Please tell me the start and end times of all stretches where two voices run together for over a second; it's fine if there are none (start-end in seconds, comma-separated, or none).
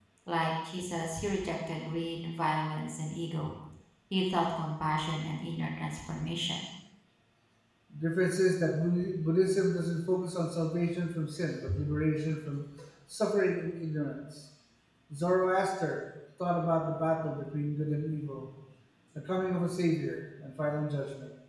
none